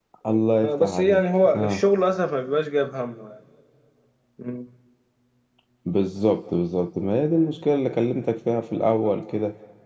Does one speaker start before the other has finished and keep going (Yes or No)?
Yes